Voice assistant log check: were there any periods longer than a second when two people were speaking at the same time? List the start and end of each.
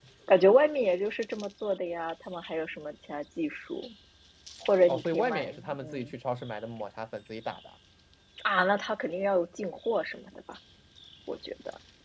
4.9-6.1

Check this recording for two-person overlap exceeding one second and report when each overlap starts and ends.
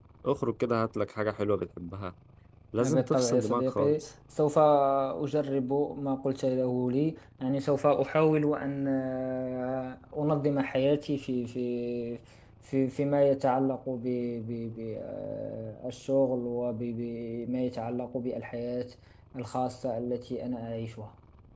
2.8-4.1

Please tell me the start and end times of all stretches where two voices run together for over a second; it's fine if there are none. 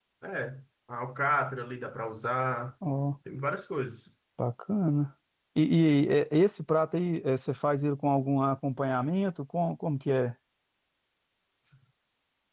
none

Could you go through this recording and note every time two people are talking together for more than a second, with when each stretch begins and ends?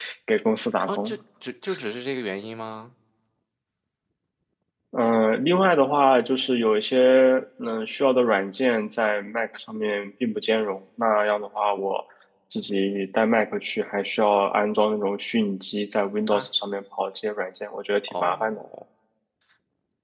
none

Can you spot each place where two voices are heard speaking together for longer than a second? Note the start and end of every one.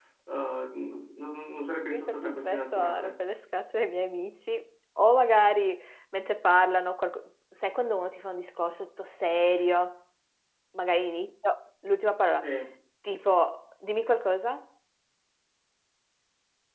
1.9-3.1

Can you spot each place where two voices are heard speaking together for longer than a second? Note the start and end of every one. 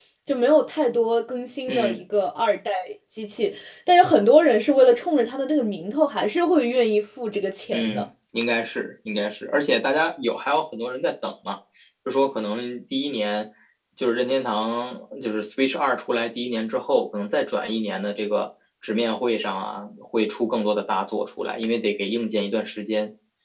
none

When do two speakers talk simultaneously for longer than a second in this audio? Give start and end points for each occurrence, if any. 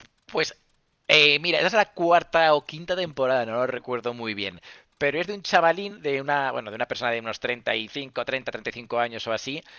none

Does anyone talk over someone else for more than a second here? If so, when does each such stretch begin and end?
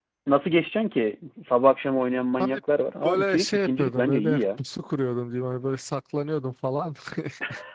3.0-4.4

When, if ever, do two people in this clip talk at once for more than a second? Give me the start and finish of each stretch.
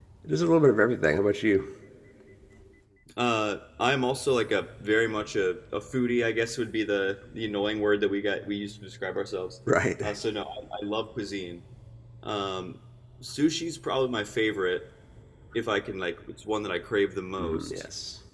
none

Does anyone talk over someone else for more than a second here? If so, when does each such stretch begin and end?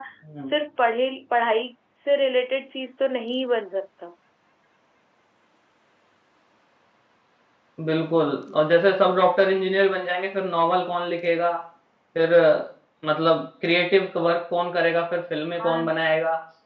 none

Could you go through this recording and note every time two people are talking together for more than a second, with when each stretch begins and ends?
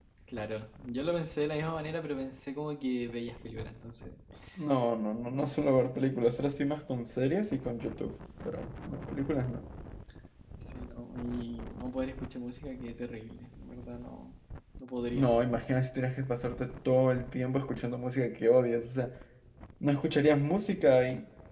none

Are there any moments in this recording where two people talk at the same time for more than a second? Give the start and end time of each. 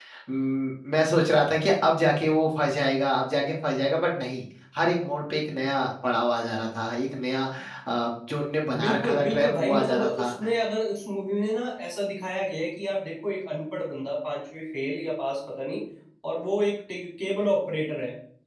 8.8-10.4

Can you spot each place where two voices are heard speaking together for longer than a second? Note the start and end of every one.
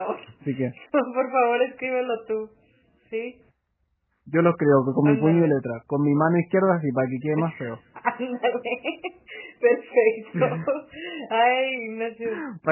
none

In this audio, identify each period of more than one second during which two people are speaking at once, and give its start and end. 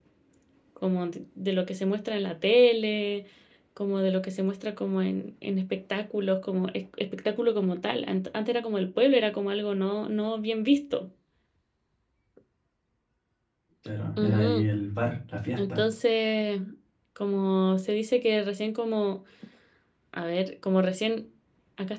none

